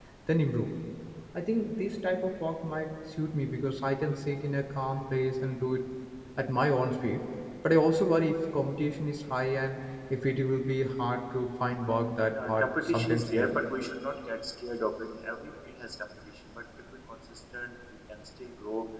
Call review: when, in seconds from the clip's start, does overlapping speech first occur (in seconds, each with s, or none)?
12.3 s